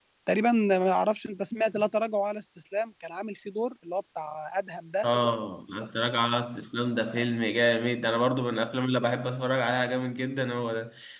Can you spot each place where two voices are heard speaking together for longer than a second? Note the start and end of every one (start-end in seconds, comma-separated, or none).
none